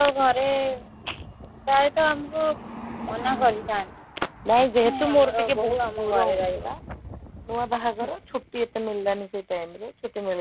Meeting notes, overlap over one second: present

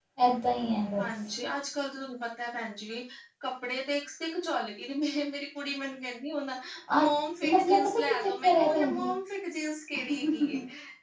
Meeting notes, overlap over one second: present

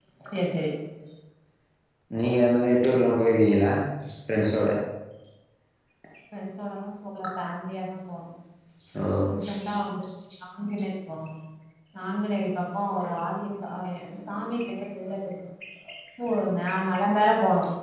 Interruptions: none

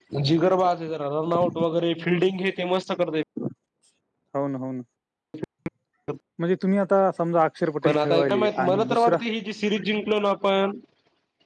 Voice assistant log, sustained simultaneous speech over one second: present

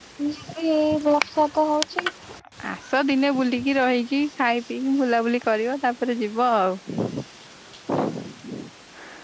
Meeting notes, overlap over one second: none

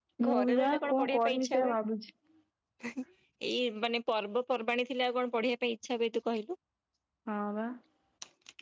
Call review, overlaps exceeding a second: present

